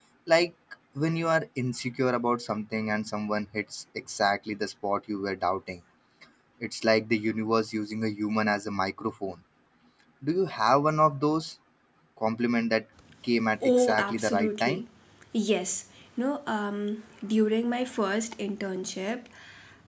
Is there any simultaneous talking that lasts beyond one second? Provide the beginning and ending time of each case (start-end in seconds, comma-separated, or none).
13.6-14.8